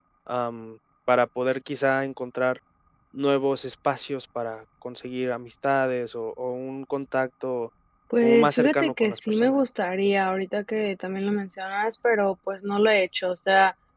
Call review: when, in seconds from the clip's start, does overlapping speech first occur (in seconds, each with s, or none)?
8.2 s